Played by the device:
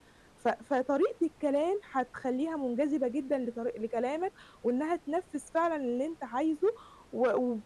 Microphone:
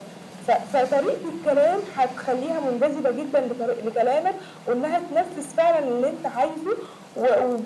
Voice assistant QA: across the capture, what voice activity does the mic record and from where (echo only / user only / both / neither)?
echo only